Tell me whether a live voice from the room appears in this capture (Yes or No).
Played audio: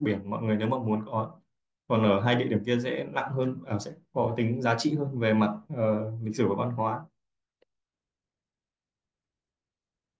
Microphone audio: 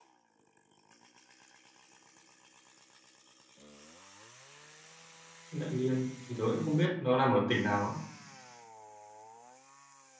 Yes